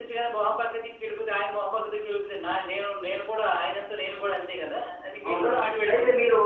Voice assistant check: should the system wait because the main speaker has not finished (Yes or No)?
No